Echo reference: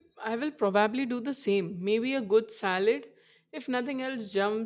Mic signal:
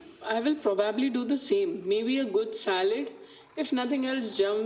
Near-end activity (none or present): none